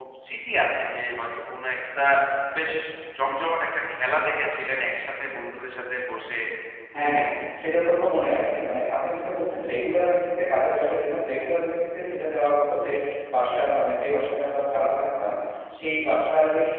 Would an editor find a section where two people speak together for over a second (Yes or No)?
No